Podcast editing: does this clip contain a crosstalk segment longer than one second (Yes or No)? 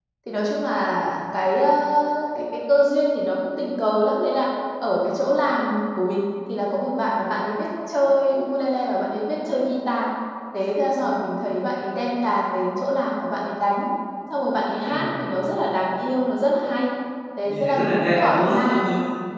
Yes